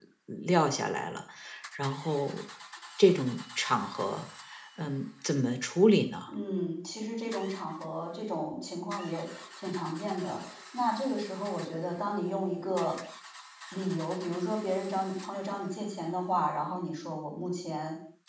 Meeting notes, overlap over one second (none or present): none